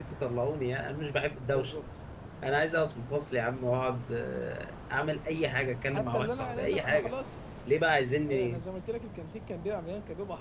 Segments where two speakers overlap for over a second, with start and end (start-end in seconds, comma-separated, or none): 5.9-7.1